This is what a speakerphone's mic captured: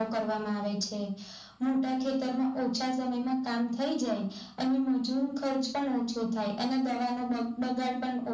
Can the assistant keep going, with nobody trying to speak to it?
Yes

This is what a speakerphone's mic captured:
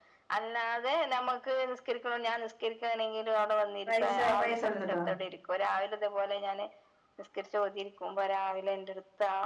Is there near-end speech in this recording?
Yes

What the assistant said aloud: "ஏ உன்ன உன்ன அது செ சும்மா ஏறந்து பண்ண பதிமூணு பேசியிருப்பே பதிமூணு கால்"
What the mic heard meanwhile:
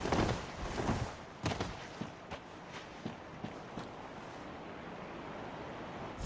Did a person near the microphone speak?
No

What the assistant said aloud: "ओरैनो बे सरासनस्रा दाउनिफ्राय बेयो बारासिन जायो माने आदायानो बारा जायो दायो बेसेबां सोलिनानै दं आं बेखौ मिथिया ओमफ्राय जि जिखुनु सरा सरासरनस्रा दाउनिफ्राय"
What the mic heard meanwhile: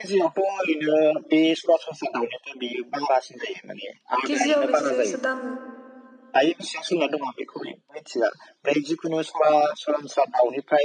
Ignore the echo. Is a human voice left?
Yes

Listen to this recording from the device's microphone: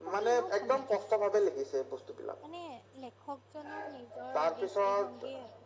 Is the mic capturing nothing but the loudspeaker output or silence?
No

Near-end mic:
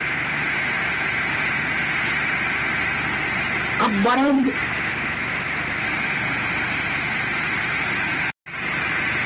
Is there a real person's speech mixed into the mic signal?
Yes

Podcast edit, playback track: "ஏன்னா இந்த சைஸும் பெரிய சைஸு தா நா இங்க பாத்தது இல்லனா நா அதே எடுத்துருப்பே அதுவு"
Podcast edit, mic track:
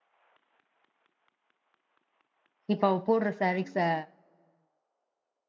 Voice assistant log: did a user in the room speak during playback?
Yes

